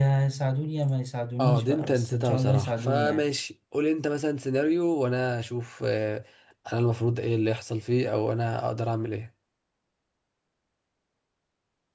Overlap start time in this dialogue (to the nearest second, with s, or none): 1 s